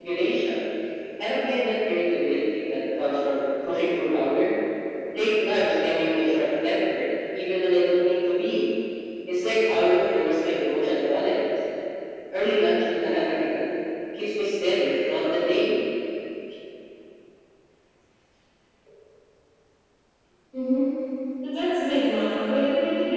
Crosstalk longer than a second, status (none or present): none